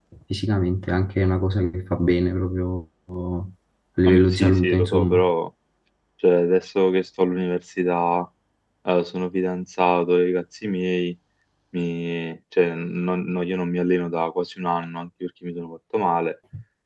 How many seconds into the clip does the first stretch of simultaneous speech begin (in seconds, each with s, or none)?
4.1 s